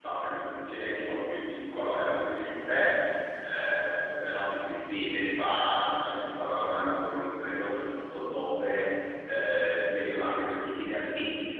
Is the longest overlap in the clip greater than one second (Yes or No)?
No